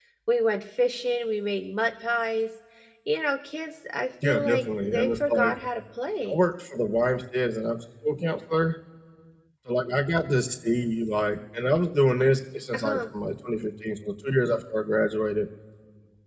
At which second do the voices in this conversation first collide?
4 s

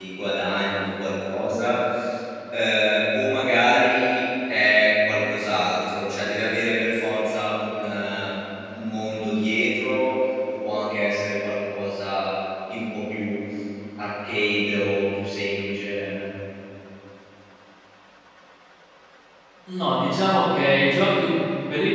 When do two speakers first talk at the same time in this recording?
none

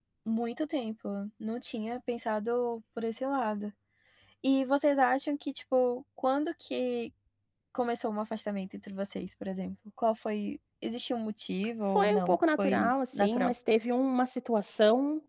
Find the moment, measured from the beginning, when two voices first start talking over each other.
12 s

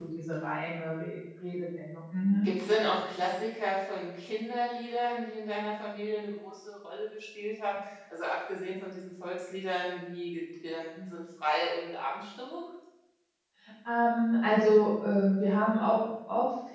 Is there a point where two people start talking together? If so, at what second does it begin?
none

